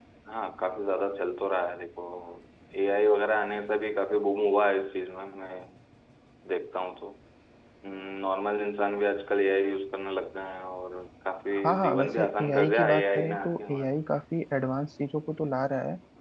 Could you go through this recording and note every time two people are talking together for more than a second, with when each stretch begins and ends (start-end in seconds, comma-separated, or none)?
11.5-14.0